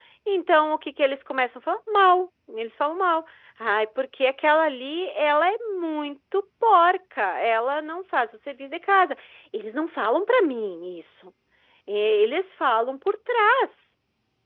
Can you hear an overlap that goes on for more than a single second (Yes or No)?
No